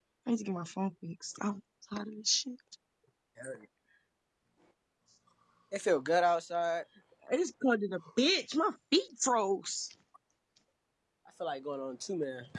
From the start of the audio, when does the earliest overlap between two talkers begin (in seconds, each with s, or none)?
none